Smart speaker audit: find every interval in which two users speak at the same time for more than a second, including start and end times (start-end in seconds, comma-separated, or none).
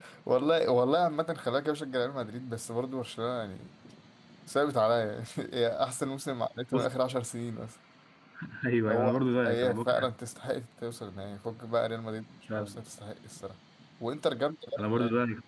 8.9-10.1